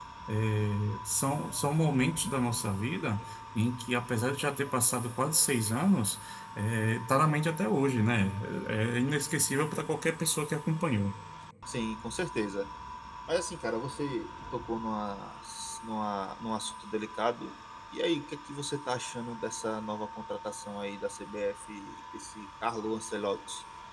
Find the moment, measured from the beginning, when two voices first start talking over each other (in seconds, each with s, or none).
none